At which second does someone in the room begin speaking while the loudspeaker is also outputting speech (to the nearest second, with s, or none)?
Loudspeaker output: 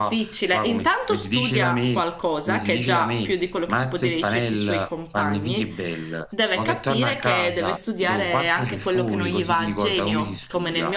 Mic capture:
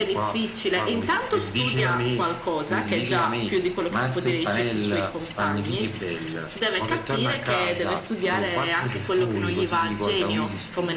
none